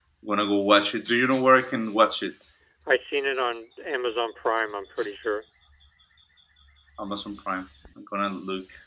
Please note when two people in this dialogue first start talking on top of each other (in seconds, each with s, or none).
none